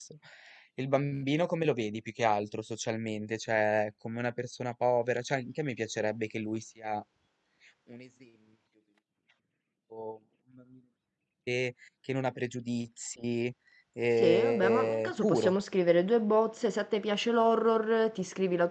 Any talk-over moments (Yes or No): Yes